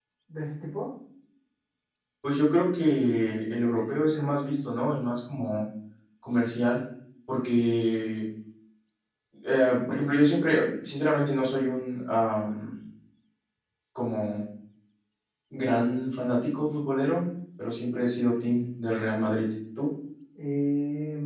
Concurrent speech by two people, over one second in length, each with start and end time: none

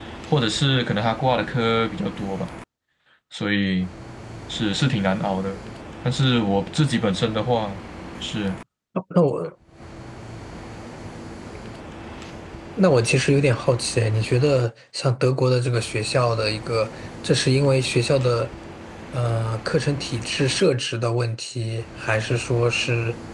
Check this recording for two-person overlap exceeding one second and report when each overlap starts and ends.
none

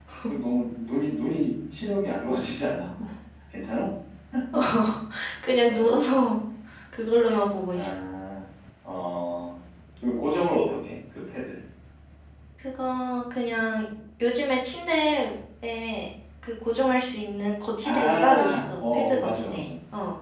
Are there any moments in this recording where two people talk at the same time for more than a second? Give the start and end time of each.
17.8-19.7

